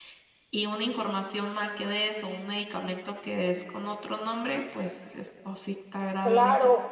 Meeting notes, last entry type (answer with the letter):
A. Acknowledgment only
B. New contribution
B